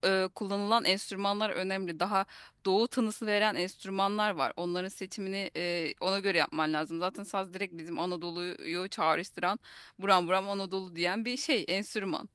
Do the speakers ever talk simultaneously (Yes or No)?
No